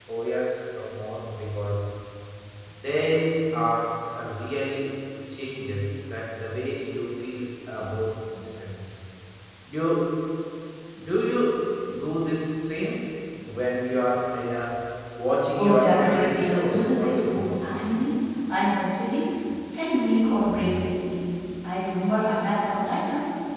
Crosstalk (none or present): present